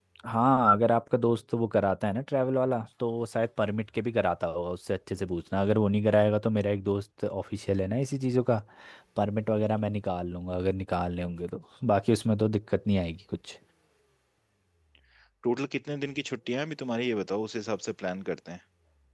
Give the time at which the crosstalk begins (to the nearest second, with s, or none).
none